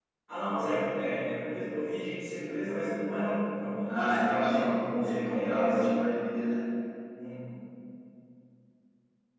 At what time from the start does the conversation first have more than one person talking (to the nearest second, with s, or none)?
4 s